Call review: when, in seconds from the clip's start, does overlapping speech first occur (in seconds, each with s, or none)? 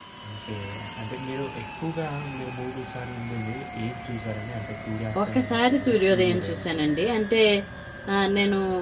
5.2 s